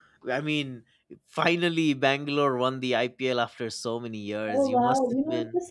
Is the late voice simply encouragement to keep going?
No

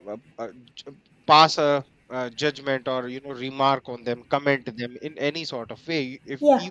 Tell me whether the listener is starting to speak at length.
No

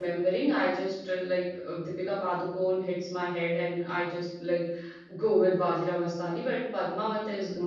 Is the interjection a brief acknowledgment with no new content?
Yes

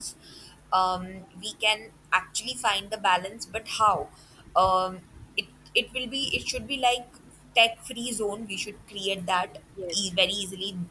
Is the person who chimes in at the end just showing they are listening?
Yes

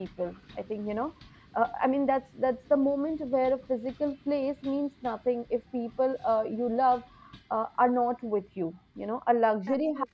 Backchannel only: Yes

